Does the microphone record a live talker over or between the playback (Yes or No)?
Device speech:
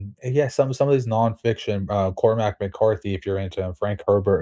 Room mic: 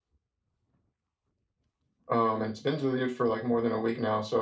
Yes